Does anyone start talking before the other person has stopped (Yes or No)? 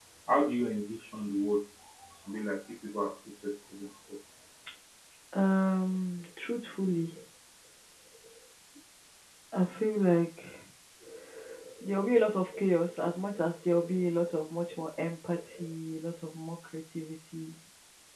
No